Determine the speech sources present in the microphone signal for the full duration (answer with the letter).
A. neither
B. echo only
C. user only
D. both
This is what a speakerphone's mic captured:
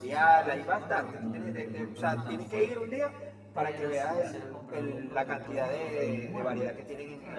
D